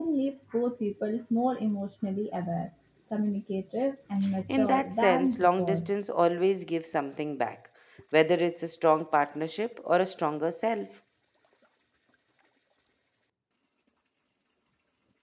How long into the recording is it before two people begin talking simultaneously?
4.5 s

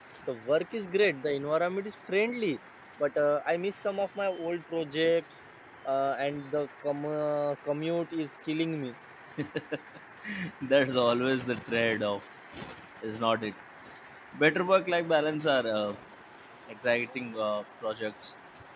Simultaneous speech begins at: none

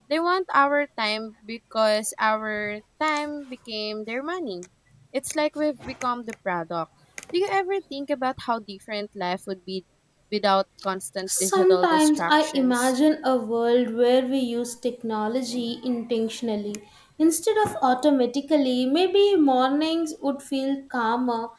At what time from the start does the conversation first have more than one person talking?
11.3 s

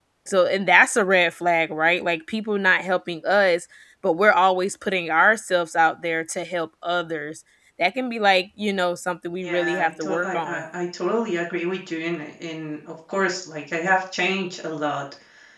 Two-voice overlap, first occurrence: 9.4 s

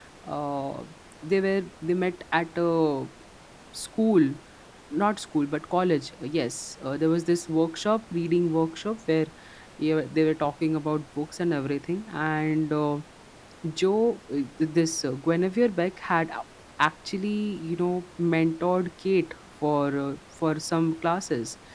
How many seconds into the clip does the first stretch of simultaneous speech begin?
none

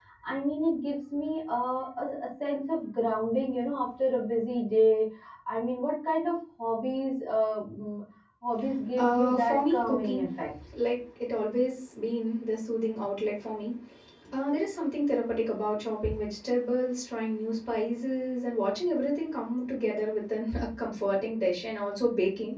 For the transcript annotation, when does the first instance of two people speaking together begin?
9.0 s

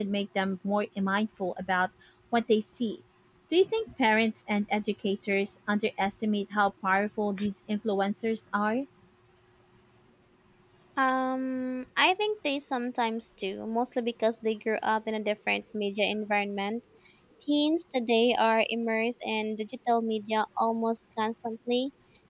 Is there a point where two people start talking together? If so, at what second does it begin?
none

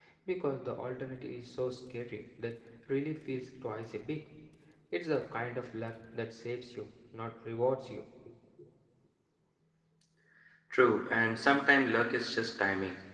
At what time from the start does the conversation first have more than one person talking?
none

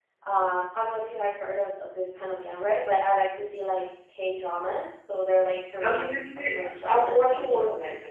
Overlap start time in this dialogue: 5.8 s

